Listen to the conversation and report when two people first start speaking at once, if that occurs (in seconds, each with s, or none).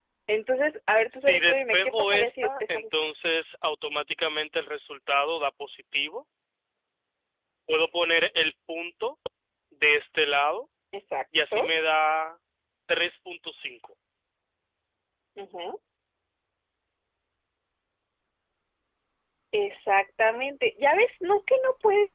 1.1 s